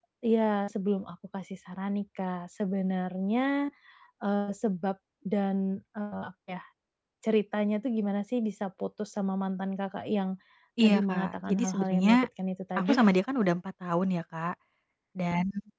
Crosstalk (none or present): present